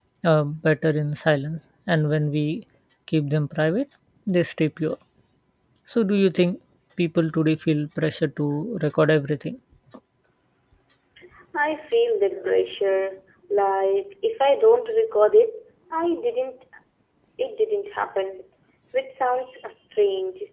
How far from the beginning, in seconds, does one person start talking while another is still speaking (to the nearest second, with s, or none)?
none